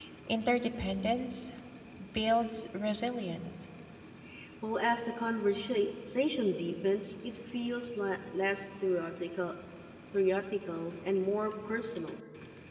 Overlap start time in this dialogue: none

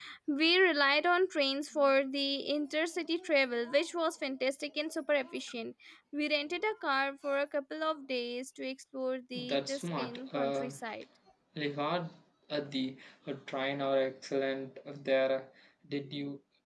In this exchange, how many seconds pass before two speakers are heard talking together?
9.3 s

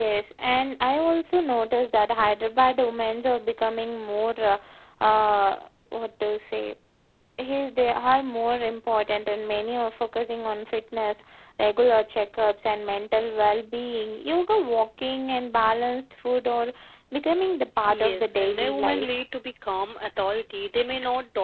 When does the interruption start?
17.9 s

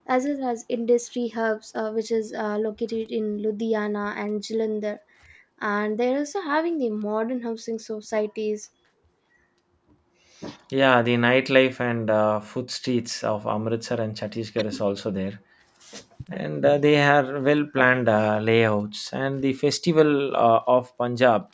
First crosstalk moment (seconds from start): none

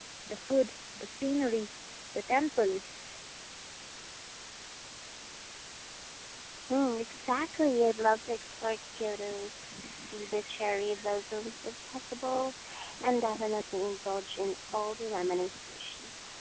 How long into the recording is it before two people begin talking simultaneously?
none

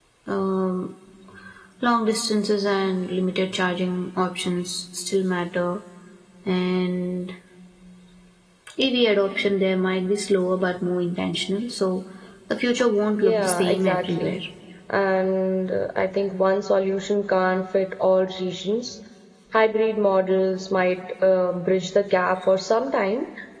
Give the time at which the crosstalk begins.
13.2 s

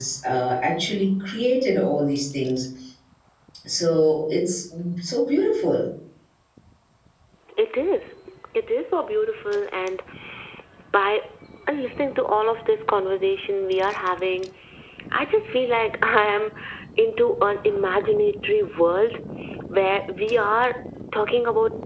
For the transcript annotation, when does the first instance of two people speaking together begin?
none

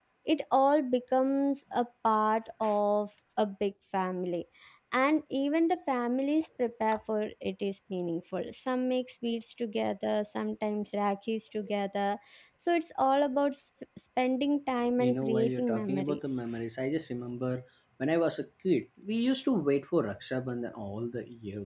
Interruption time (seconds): 15.0 s

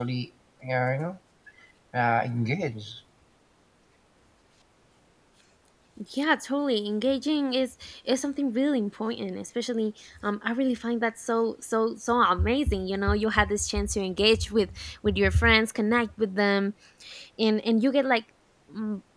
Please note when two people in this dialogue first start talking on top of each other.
none

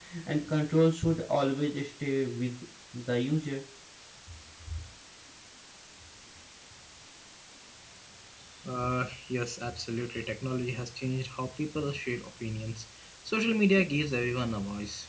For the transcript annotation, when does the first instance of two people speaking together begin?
none

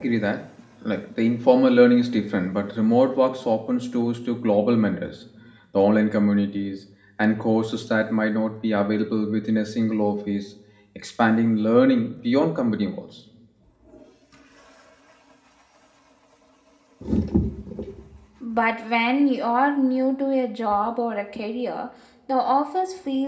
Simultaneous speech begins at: none

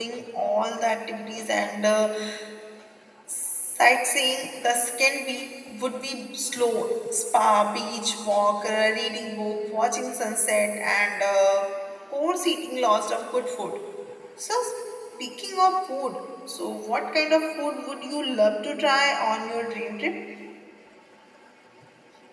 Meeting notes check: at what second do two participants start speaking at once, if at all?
none

